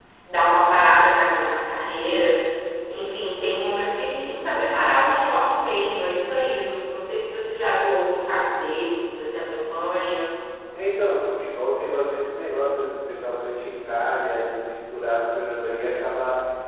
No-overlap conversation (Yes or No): Yes